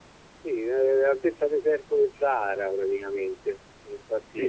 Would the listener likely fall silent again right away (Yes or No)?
No